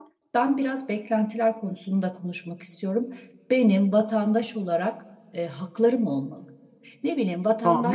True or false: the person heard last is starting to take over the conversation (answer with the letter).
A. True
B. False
A